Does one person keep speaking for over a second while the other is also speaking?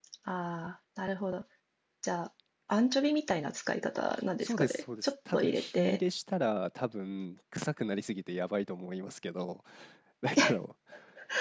Yes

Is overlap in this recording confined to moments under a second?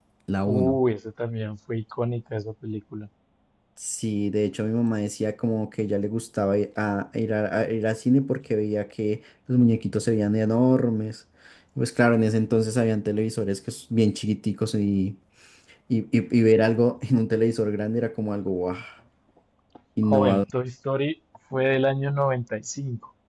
Yes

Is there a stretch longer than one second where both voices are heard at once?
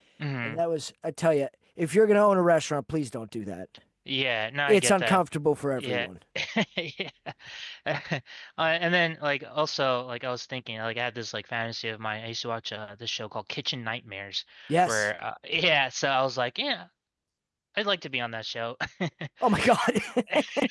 No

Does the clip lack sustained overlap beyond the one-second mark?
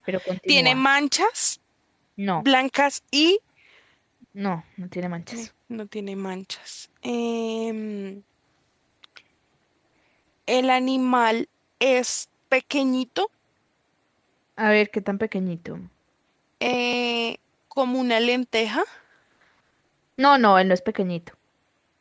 Yes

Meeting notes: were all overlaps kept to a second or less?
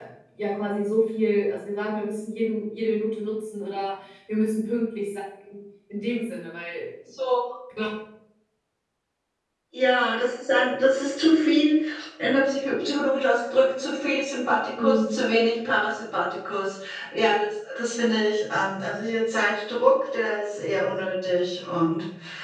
Yes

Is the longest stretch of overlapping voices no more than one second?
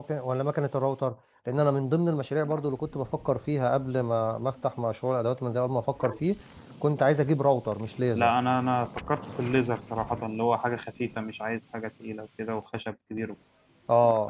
Yes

